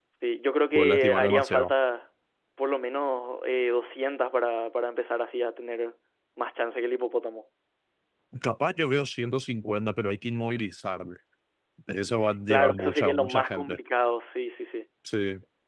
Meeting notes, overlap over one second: present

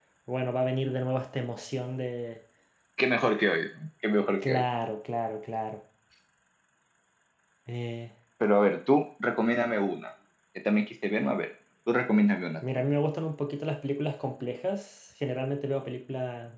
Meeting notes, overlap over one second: none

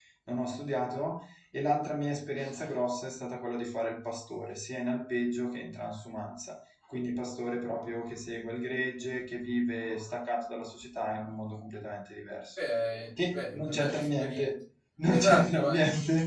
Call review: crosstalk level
present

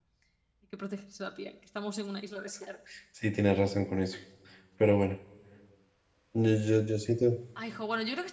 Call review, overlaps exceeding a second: none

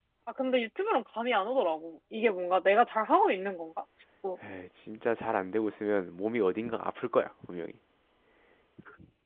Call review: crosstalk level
none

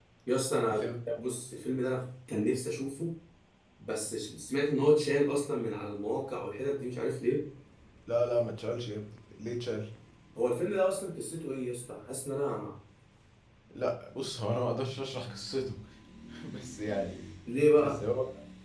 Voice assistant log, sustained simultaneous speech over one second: none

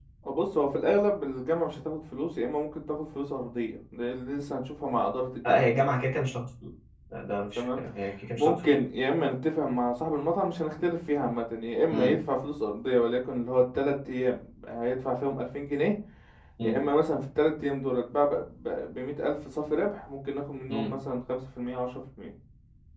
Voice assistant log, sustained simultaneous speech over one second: none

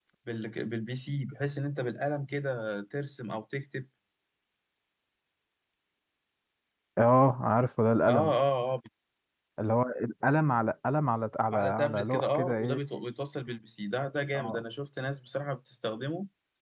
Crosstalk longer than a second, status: present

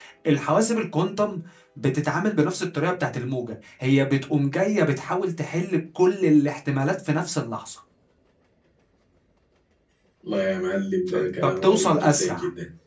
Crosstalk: present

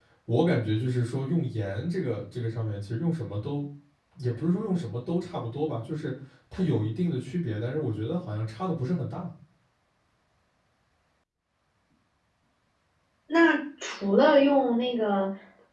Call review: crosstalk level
none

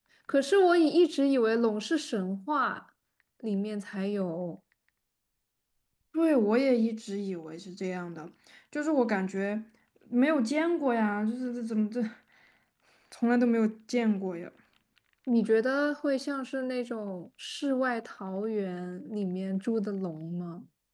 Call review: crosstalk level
none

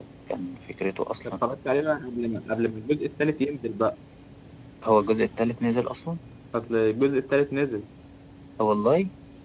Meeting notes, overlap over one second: none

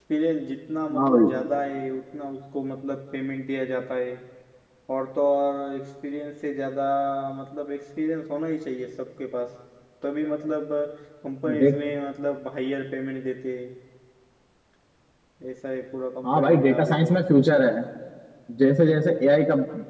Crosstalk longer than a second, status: present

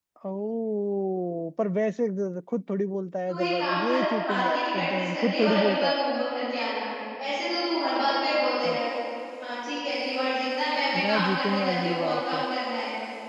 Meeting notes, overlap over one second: present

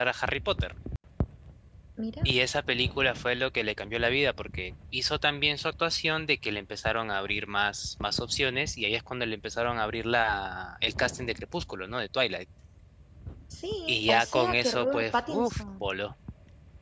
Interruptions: present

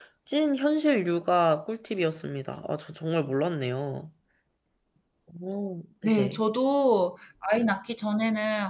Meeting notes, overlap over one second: none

